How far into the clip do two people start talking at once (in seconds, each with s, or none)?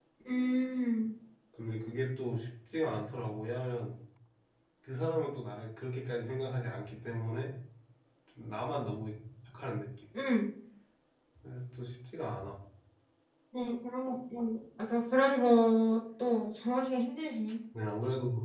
none